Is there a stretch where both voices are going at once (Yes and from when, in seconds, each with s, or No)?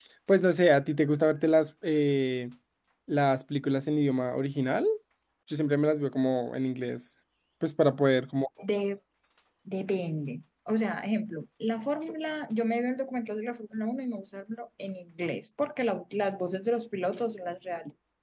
No